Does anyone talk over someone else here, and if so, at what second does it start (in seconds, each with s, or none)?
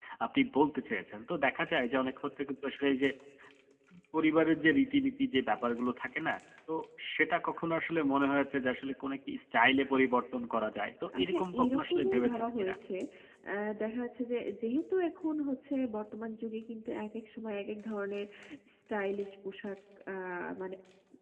11.1 s